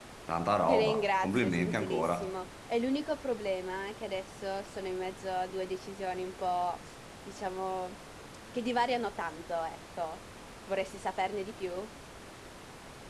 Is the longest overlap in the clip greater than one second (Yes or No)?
Yes